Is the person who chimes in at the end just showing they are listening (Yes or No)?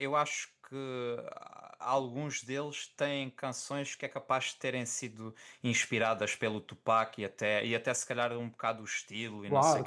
No